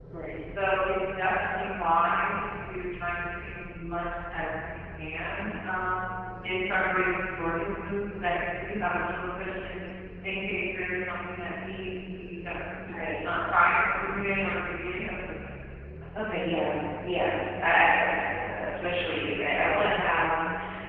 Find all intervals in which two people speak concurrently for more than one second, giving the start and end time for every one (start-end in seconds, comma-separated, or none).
none